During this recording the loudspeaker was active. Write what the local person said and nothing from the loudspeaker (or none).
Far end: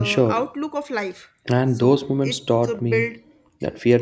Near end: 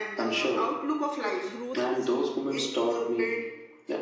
growth